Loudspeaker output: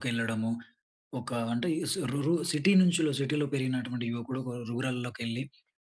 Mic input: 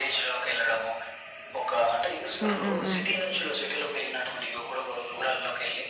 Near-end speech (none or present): present